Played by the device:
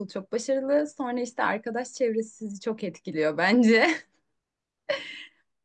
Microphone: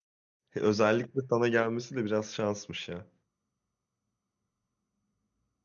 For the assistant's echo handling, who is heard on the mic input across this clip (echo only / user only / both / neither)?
user only